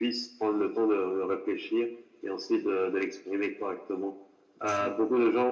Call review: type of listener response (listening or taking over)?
listening